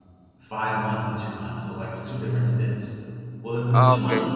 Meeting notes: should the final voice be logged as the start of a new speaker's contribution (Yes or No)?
No